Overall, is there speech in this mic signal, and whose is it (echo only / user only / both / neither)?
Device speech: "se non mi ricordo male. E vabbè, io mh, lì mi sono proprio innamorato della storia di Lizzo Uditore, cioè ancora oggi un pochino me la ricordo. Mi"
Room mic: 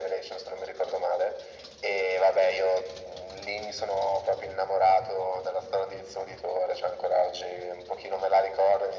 echo only